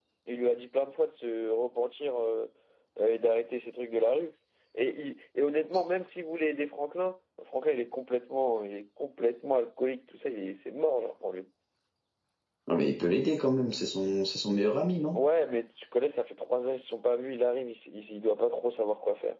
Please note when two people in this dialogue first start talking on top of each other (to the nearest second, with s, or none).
none